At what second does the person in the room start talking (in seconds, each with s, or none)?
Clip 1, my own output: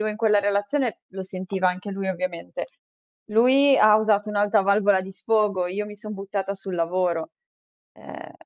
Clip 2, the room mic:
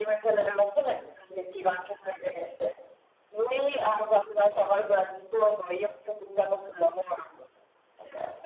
none